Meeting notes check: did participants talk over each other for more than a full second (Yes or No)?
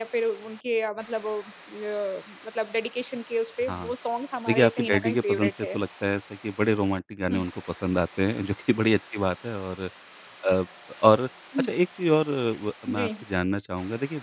Yes